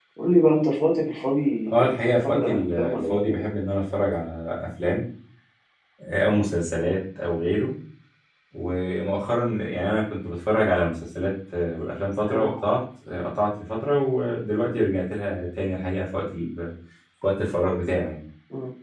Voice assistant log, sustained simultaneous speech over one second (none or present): present